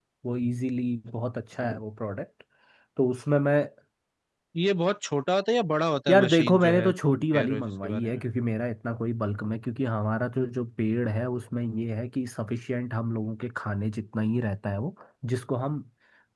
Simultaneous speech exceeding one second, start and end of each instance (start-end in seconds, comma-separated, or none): 6.1-8.2